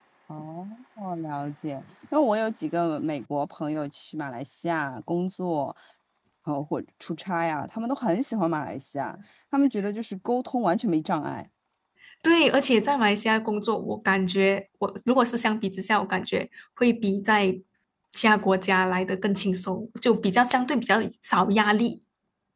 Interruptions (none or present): none